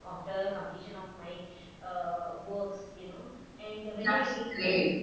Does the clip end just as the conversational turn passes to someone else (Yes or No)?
No